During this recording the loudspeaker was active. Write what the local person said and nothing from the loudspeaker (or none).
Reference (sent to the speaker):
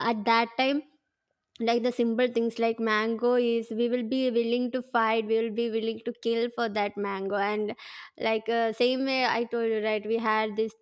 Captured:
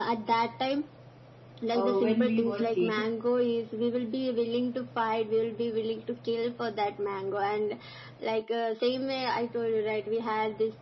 uh, when we were kid.